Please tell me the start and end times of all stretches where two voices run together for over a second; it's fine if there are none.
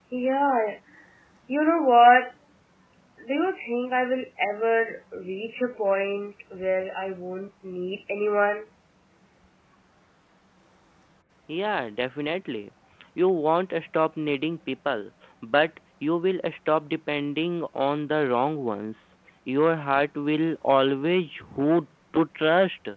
none

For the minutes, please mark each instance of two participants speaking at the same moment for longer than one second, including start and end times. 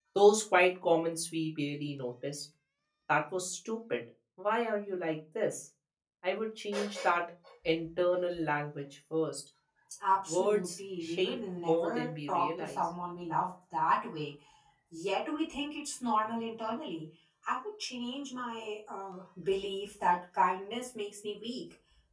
10.3-12.8

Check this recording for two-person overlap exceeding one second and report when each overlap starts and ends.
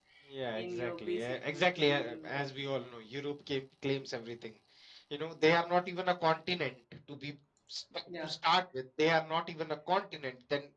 0.5-2.4

